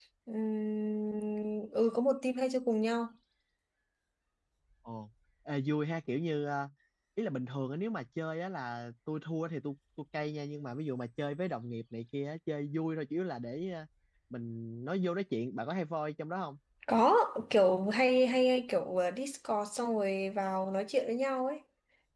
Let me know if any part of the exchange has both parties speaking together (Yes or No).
No